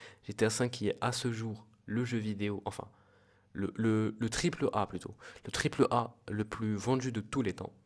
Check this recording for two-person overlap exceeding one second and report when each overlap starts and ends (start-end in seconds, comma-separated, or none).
none